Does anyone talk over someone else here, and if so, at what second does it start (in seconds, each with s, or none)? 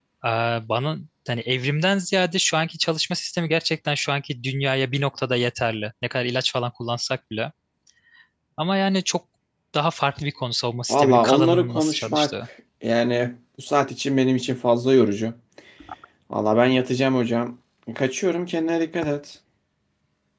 10.9 s